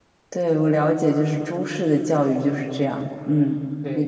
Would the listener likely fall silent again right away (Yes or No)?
No